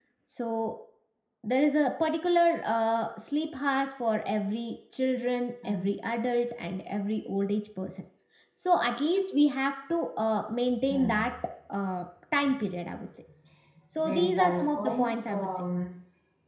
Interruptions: present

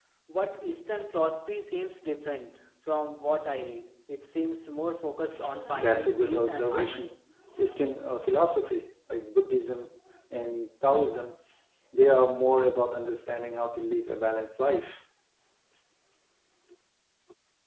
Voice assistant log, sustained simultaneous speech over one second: present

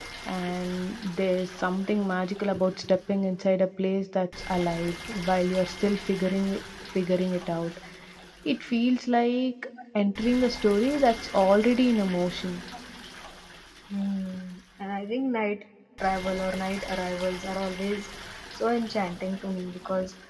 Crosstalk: none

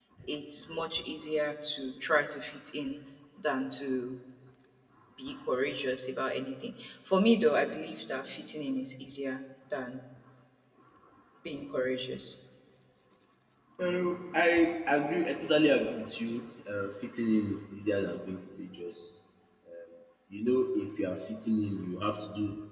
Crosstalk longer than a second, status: none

